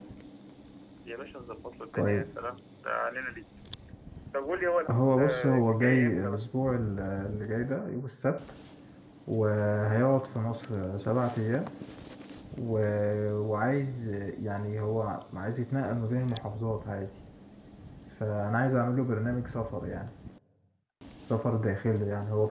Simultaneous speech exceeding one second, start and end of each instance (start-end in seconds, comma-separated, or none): 4.9-6.4